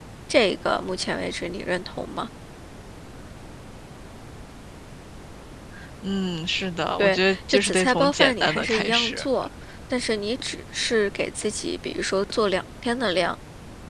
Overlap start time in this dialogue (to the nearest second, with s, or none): 7 s